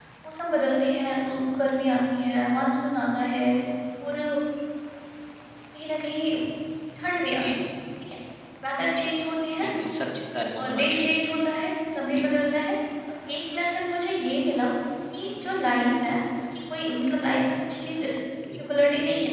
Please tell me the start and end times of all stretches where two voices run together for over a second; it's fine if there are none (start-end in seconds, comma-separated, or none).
none